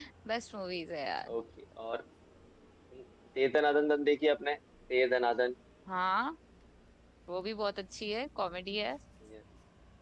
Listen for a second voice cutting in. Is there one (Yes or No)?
No